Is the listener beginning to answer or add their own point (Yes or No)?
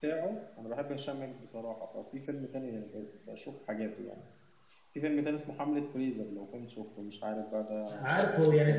Yes